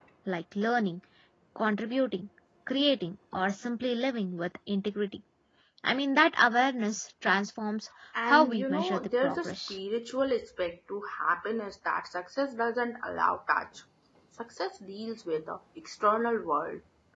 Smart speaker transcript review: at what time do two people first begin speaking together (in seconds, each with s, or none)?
8.2 s